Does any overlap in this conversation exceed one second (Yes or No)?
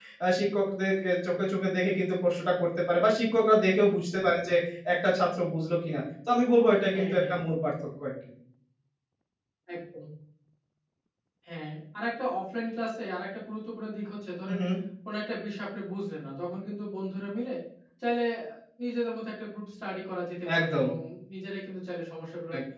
No